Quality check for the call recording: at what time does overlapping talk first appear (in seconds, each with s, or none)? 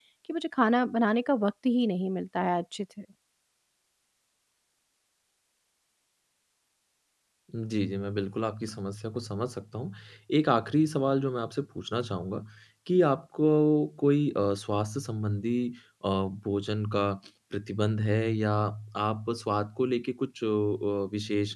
none